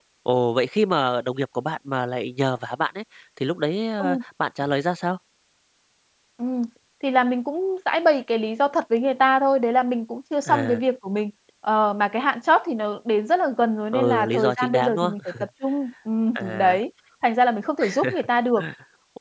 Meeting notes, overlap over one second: present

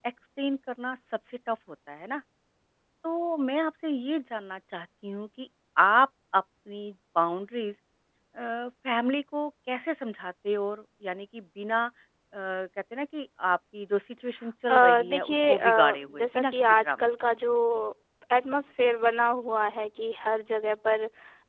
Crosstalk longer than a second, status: present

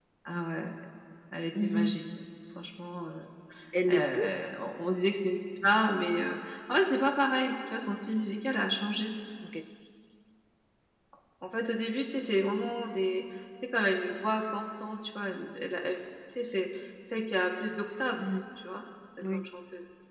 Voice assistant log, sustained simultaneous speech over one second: none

